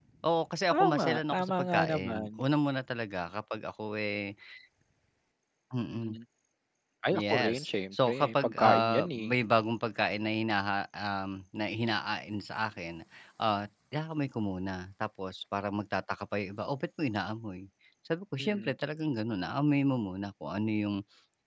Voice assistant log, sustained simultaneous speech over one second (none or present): present